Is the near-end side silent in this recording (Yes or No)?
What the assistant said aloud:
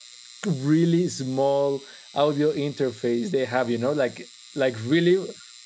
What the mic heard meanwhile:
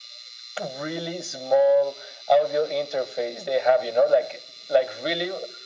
Yes